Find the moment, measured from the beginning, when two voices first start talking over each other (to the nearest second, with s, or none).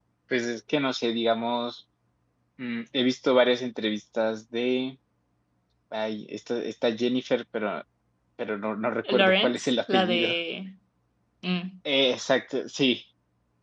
9 s